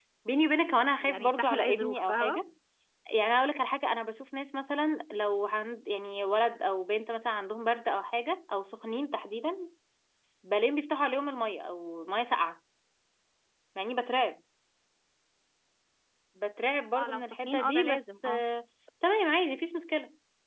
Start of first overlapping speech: 1.0 s

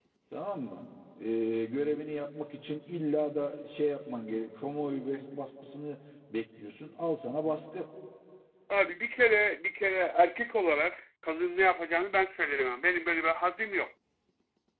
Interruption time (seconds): none

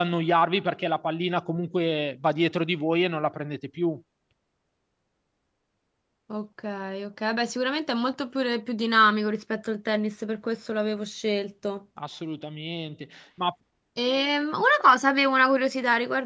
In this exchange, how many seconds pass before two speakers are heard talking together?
none

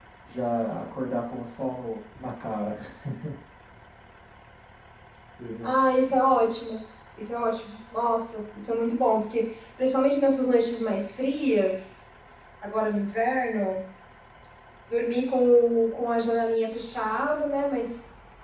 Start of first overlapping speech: none

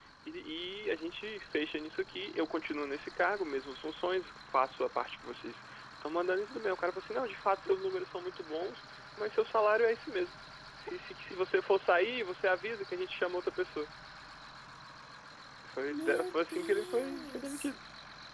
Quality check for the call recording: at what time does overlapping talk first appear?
15.9 s

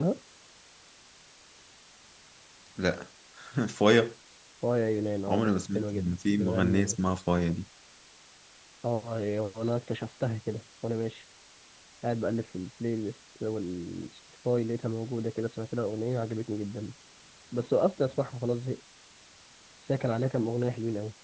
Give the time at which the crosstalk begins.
5.3 s

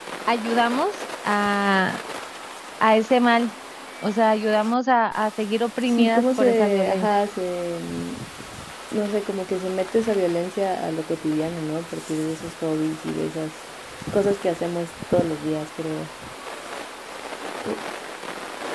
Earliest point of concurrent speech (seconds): 5.9 s

